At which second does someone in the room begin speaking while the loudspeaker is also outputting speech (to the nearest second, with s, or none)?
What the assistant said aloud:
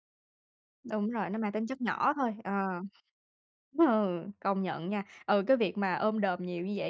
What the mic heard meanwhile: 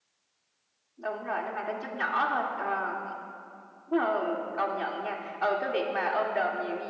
none